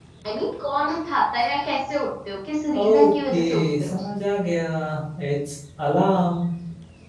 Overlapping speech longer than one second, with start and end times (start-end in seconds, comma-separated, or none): 2.8-4.0